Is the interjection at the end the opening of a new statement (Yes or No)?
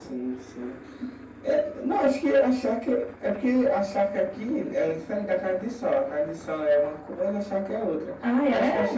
No